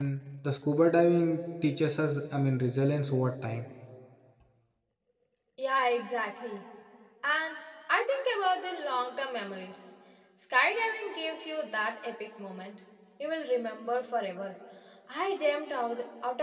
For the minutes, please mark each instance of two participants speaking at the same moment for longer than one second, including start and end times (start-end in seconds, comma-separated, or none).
none